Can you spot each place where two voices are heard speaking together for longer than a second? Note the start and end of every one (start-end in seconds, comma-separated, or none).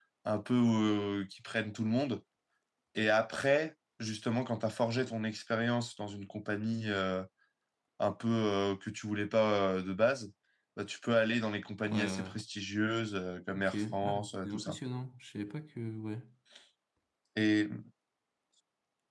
13.5-14.8